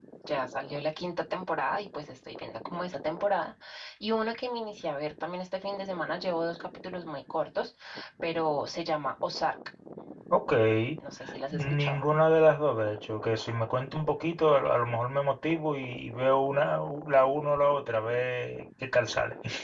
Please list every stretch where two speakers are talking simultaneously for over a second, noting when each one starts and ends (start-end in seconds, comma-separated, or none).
none